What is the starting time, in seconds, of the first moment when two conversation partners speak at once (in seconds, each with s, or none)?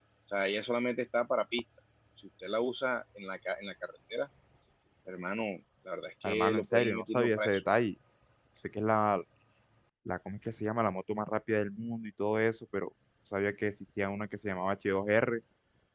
6.2 s